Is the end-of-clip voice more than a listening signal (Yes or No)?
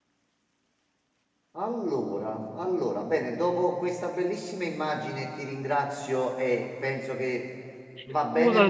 No